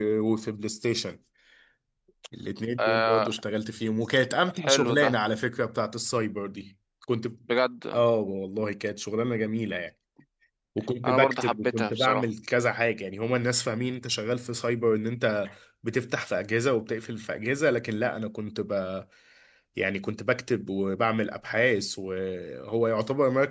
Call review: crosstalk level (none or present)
present